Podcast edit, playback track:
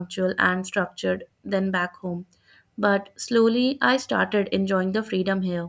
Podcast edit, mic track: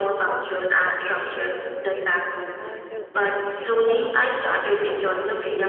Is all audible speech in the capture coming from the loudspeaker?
No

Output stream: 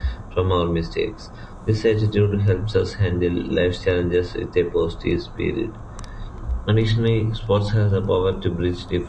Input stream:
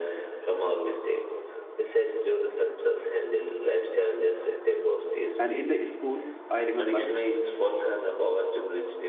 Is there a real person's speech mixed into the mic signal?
Yes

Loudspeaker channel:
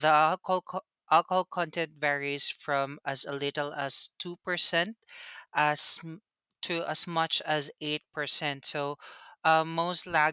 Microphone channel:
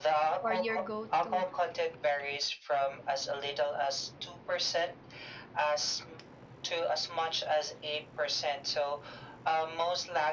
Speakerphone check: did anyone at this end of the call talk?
Yes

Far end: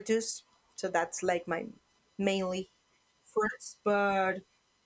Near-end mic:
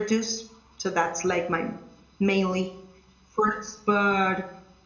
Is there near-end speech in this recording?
No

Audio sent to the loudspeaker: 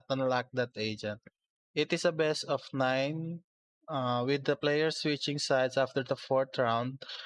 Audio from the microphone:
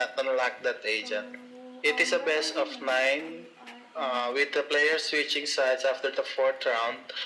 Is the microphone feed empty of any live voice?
No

